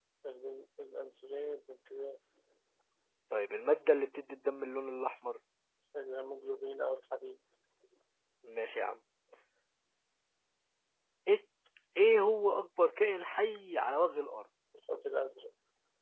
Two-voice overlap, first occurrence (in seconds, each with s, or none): none